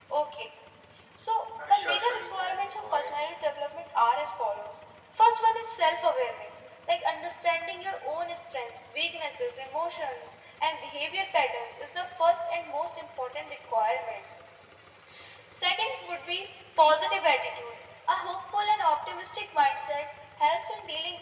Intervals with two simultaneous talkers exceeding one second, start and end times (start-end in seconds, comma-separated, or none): 1.6-3.2